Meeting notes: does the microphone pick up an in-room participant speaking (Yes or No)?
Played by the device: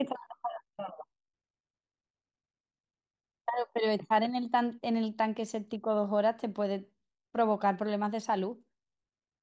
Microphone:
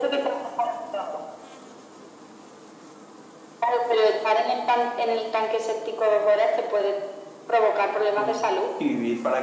Yes